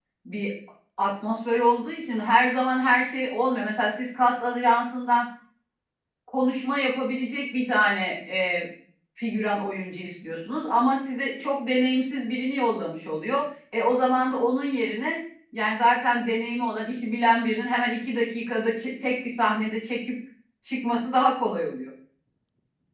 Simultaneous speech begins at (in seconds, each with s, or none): none